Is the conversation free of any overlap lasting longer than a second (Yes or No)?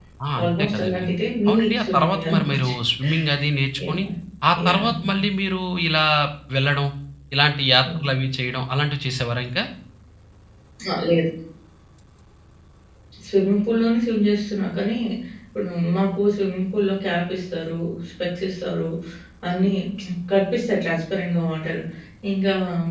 No